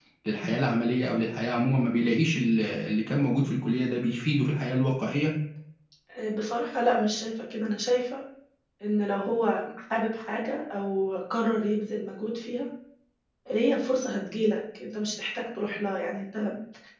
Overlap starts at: none

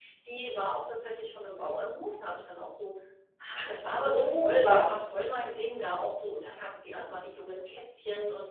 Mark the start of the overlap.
3.5 s

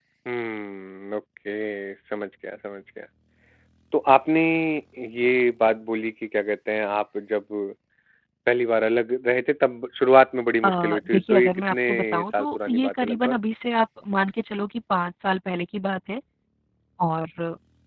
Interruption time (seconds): 10.6 s

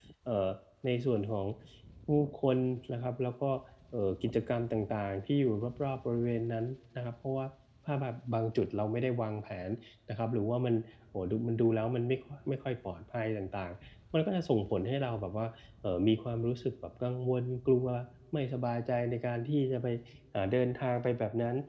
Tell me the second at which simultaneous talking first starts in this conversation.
none

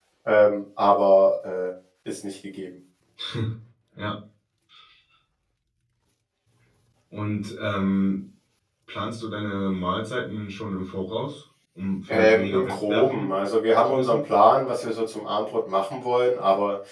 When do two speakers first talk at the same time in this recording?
12.1 s

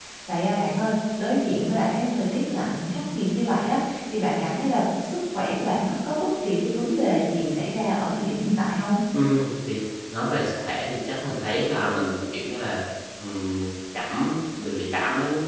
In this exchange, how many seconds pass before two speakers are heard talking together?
none

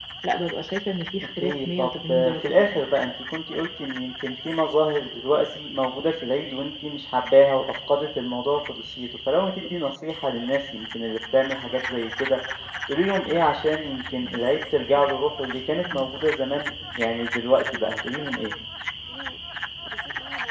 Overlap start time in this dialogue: 1.4 s

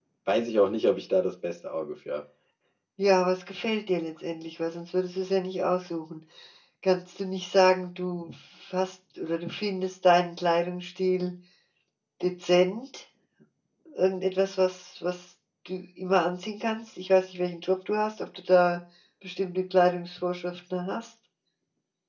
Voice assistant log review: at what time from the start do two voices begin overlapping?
none

